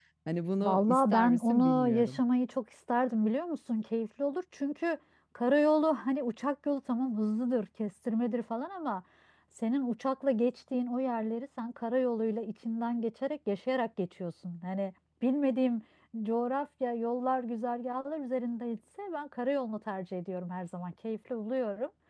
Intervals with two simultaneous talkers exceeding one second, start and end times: 0.6-2.2

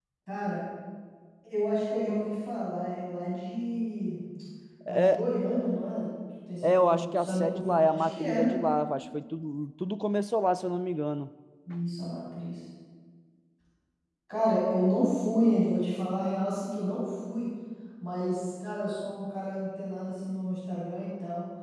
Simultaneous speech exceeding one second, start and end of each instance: 6.6-8.5

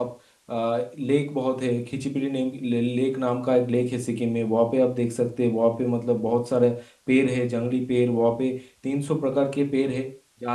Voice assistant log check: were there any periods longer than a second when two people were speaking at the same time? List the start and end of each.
none

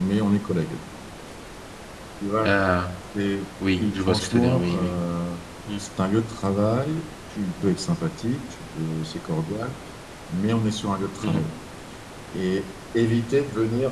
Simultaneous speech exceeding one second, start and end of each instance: 3.8-5.0

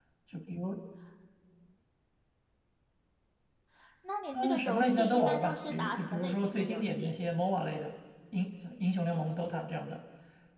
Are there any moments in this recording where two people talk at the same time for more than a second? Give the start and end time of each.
4.3-7.1

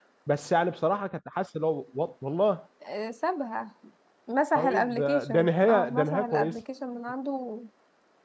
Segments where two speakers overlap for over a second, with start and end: 4.6-6.6

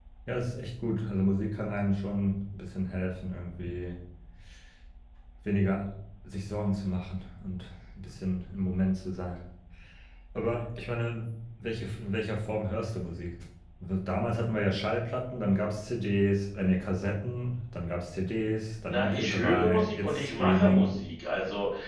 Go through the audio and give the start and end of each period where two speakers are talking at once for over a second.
18.9-20.9

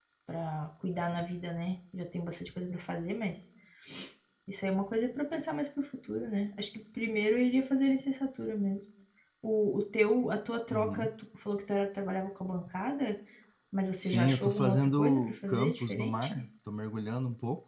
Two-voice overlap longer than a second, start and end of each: 14.0-16.3

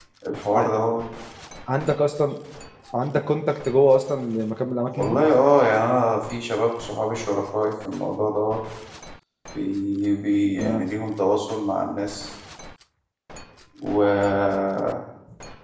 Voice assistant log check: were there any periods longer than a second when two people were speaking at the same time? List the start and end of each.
none

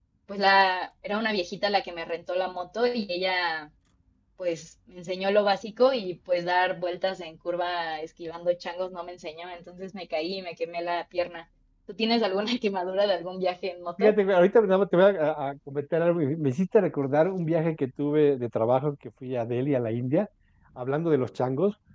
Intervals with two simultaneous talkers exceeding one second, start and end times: none

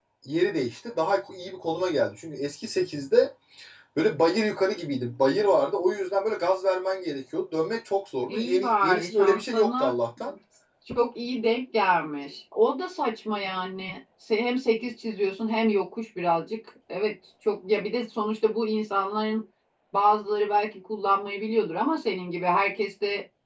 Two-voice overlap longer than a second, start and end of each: 8.3-9.9

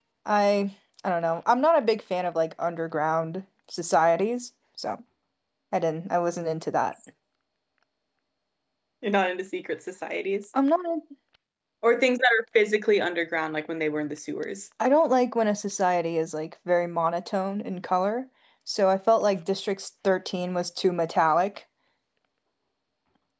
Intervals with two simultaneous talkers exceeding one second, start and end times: none

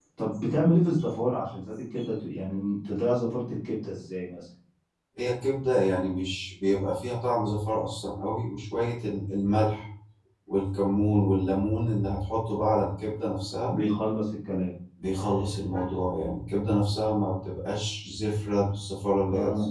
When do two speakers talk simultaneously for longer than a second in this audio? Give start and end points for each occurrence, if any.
none

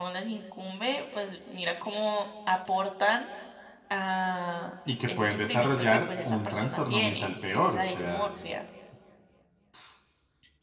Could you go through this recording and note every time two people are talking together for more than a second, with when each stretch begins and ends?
5.1-8.3

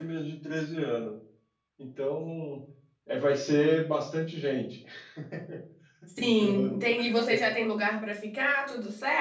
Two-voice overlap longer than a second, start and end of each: 6.2-7.4

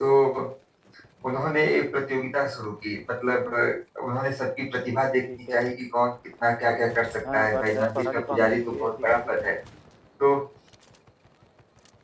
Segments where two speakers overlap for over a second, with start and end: 7.3-9.5

